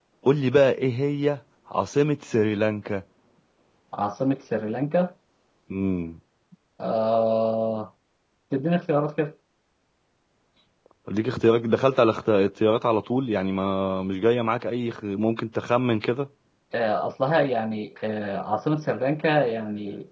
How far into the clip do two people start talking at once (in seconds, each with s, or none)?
none